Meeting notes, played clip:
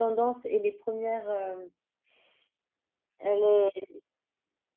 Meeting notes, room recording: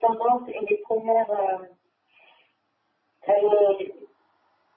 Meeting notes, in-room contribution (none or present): none